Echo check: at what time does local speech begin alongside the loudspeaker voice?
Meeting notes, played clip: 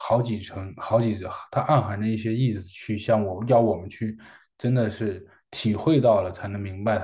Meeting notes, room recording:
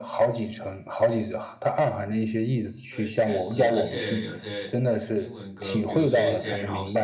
3 s

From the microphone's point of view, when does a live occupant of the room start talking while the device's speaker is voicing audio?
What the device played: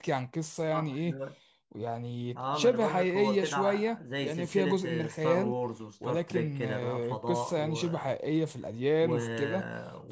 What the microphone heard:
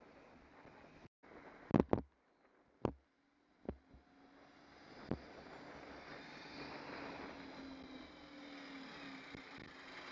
none

